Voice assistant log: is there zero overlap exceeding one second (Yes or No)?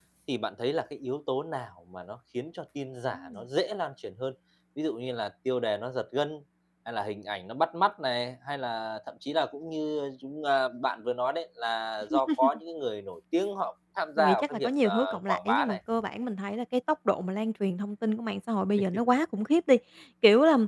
No